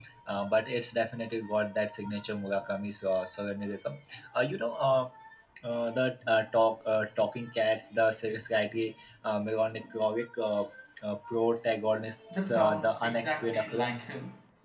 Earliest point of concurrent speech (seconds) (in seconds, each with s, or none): 12.3 s